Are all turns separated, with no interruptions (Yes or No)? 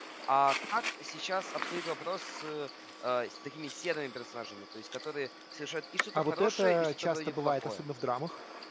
No